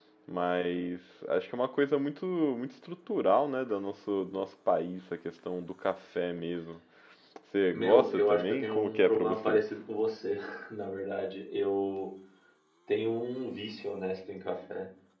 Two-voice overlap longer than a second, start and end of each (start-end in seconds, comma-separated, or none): 7.7-9.6